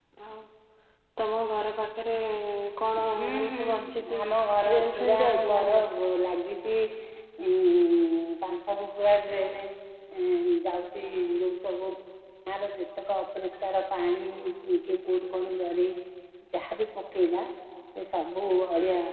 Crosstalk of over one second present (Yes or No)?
Yes